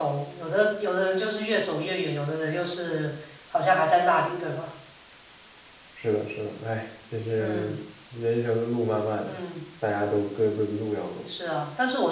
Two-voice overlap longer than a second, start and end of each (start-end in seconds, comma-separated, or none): none